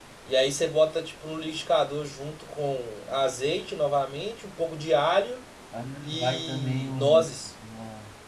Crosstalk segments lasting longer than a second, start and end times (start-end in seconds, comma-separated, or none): 6.2-7.5